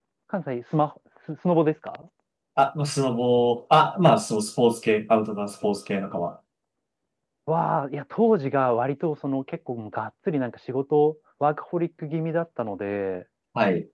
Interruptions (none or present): none